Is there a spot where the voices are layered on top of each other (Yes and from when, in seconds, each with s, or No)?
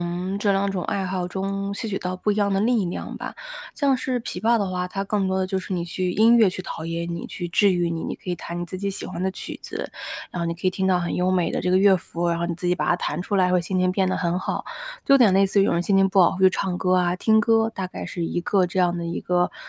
No